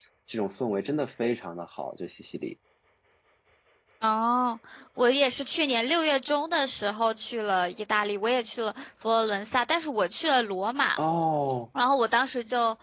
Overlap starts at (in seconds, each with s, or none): none